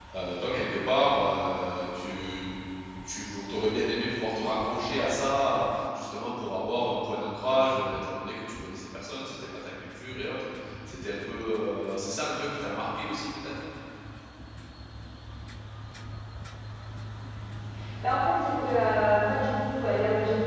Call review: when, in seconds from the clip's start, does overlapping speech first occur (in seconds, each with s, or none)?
none